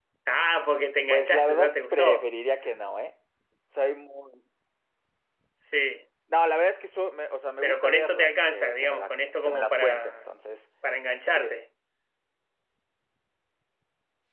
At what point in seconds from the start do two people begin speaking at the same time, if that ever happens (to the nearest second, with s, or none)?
1 s